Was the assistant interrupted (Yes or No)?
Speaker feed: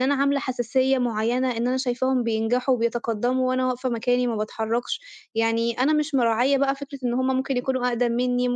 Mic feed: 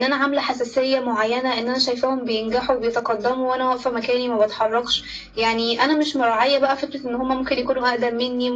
No